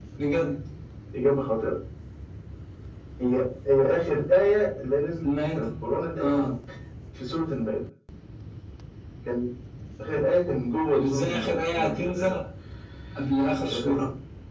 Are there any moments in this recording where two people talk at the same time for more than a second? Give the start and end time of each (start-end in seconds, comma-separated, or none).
10.9-12.3